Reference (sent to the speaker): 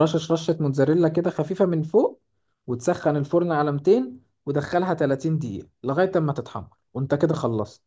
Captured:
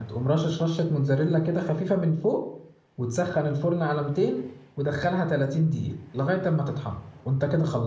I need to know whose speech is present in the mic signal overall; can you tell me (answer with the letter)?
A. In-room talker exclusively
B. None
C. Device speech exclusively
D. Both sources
C